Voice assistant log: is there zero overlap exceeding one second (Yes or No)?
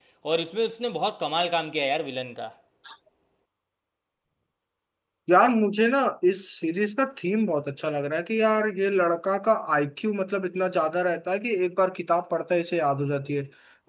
Yes